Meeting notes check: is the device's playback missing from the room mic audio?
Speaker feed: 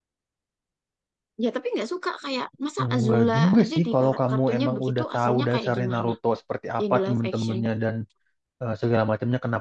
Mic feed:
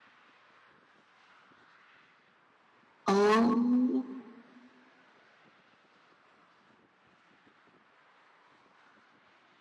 Yes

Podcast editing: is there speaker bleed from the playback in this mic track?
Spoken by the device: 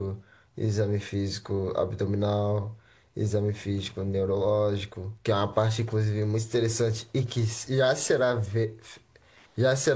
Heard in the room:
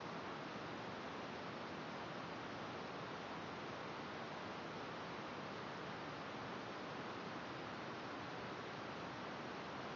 No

